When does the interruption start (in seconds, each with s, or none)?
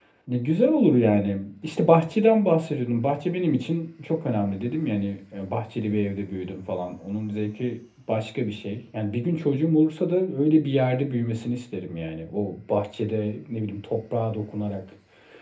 none